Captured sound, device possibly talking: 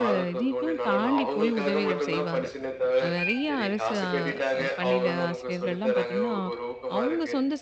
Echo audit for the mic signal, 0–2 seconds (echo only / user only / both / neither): both